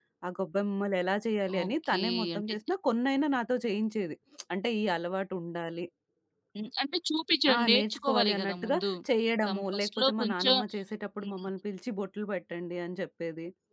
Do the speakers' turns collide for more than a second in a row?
Yes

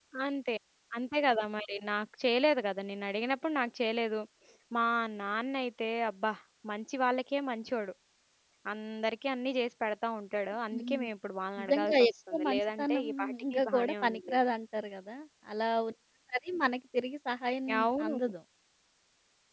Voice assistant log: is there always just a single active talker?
No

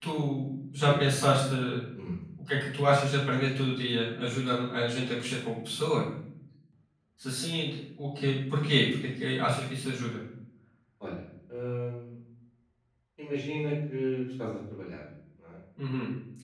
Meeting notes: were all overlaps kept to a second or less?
Yes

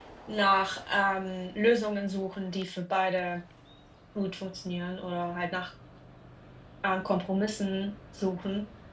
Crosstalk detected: No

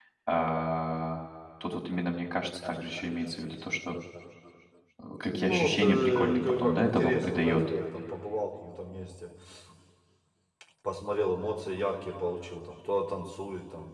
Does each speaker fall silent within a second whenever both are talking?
No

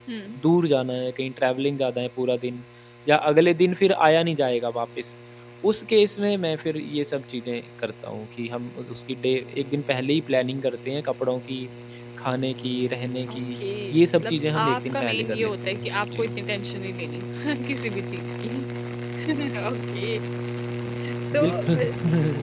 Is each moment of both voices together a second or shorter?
No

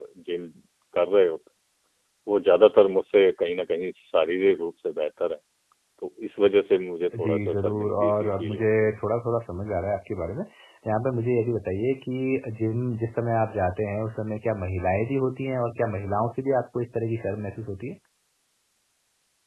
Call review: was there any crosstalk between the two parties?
Yes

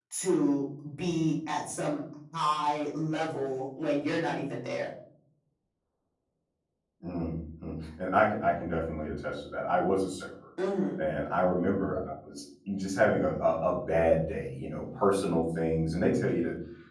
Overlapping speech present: No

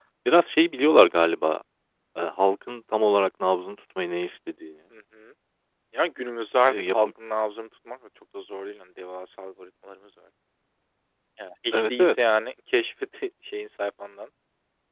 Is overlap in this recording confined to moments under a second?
Yes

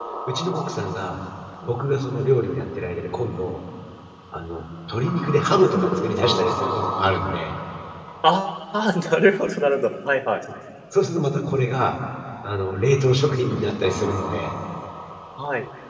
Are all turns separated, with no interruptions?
Yes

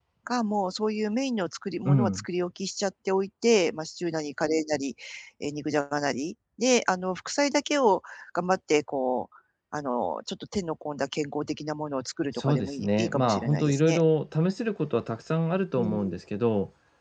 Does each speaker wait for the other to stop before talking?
No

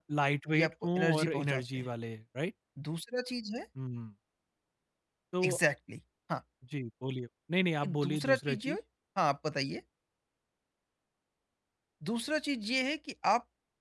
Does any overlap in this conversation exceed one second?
Yes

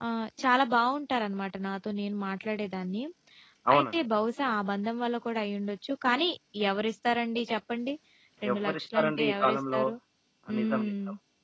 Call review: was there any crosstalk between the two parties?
Yes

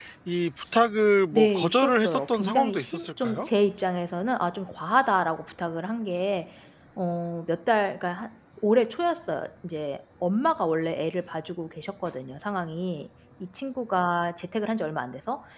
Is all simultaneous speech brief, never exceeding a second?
No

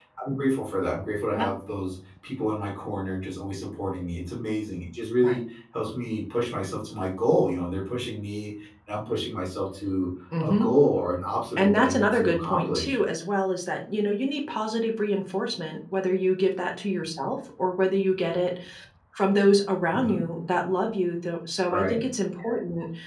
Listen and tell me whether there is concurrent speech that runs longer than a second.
Yes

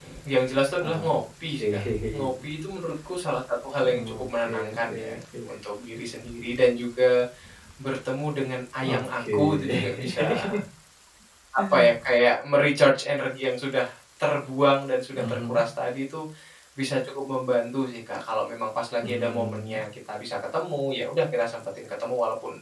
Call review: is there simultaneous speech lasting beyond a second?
Yes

